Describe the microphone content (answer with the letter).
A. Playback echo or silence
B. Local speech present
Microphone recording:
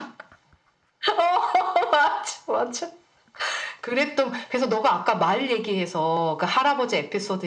A